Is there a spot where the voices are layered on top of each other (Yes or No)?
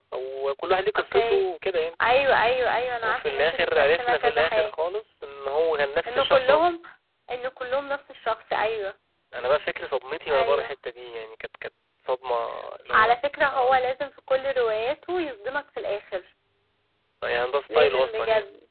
Yes